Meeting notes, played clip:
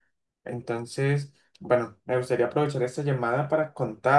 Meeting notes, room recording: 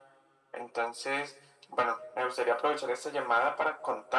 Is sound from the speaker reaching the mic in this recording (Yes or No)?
Yes